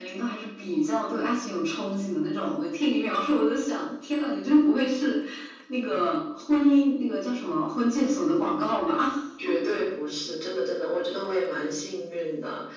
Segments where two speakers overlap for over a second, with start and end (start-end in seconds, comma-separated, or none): none